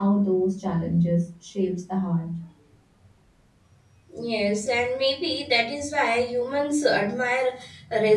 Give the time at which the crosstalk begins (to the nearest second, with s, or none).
none